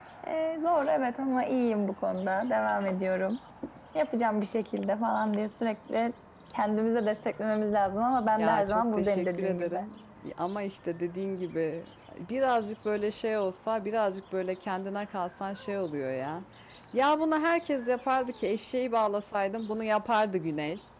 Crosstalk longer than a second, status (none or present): present